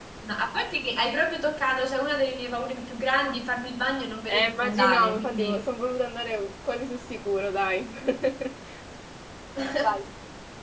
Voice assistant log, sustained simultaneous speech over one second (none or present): present